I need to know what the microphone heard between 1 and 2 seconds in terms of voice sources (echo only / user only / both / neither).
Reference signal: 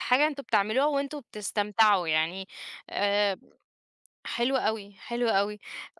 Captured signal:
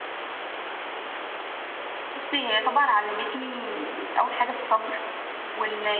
neither